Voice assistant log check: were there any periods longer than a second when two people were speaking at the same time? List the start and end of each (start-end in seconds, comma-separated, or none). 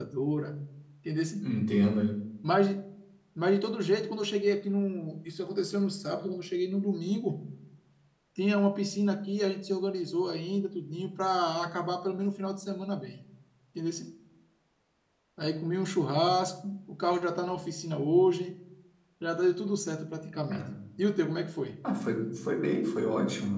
none